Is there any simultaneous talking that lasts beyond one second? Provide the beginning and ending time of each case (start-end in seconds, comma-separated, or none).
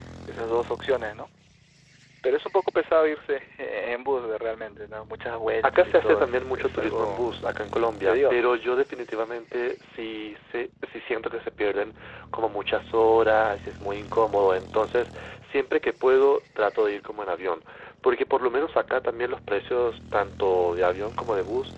5.6-7.3